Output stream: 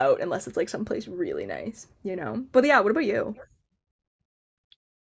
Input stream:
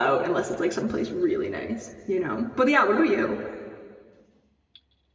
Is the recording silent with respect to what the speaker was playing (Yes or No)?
No